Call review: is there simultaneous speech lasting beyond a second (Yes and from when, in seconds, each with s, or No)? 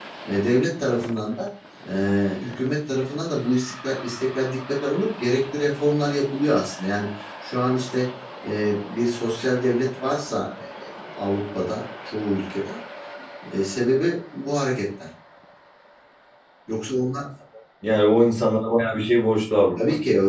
No